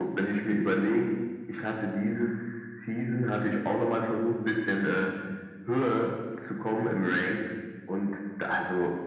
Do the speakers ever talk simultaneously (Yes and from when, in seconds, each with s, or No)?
No